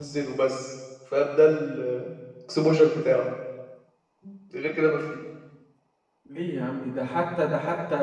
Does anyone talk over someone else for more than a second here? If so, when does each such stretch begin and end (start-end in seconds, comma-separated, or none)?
none